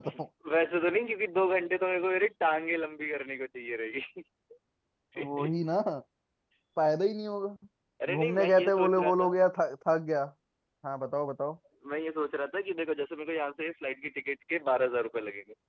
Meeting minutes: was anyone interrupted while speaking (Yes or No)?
Yes